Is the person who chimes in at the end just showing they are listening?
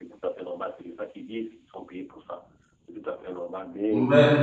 No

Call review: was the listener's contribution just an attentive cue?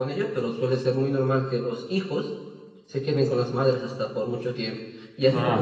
Yes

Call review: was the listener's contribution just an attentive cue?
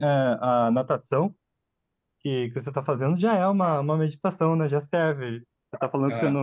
Yes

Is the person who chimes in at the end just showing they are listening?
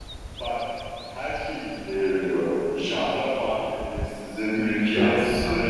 Yes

